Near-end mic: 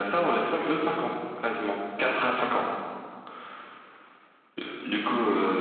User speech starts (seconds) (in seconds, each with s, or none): 0.4 s